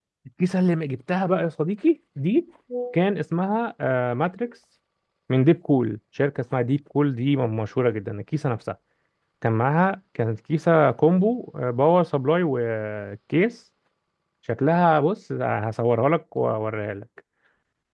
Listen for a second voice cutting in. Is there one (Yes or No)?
No